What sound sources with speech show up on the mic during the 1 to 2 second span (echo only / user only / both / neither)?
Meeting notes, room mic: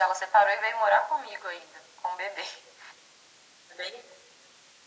echo only